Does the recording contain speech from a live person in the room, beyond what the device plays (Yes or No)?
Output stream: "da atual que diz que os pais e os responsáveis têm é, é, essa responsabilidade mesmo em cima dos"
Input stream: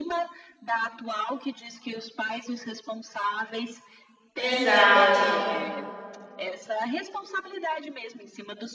Yes